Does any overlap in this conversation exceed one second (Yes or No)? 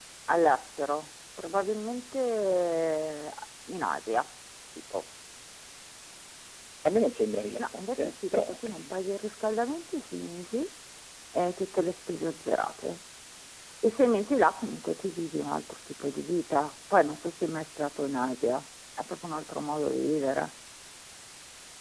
Yes